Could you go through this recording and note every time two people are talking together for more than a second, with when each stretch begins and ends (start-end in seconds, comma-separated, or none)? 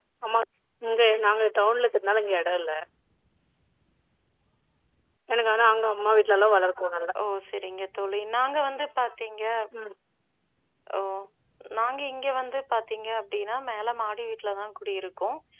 none